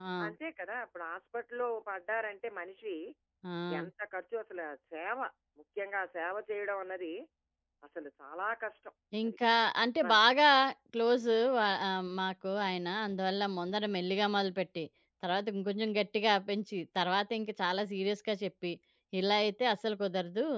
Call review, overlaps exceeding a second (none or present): none